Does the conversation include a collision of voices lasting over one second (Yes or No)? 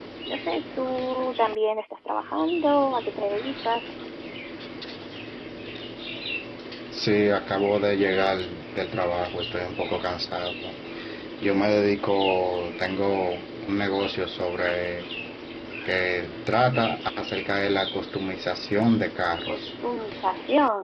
No